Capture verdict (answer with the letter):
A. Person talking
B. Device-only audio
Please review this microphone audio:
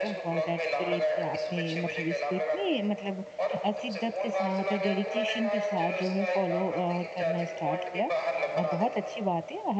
A